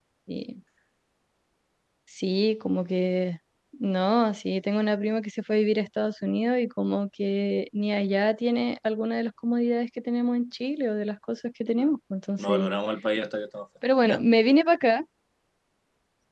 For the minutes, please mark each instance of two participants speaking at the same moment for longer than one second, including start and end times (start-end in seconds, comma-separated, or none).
none